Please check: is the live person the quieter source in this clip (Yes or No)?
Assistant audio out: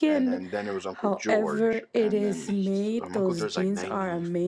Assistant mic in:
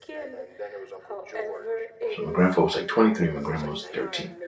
No